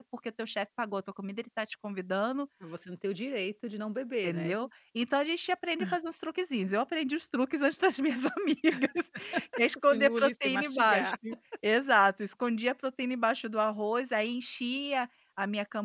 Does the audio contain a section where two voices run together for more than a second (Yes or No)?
Yes